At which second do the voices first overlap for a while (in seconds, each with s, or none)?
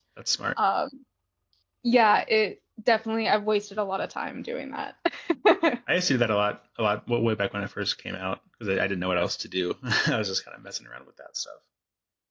none